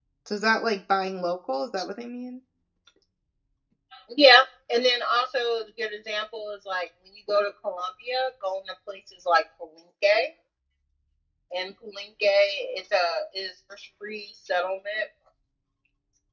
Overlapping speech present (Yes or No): No